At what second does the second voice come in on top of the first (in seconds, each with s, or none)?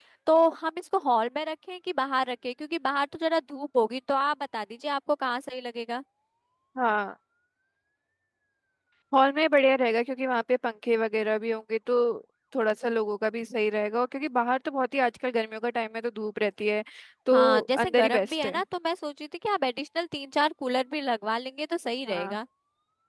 17.3 s